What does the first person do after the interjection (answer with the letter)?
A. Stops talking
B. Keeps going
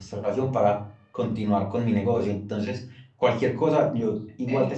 B